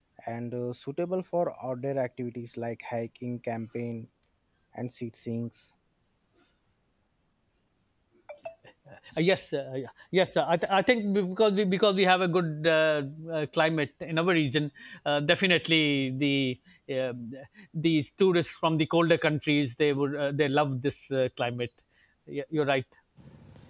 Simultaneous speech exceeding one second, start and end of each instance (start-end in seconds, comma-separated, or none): none